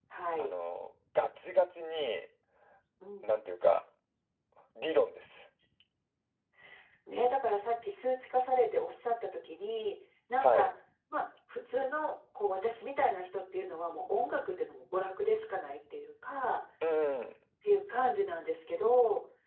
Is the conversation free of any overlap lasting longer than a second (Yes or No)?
Yes